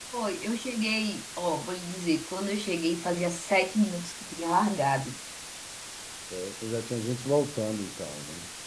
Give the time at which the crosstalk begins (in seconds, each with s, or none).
none